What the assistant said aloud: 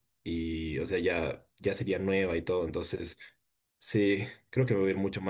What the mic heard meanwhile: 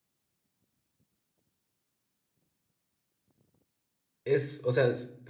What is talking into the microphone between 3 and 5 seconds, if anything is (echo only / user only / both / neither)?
user only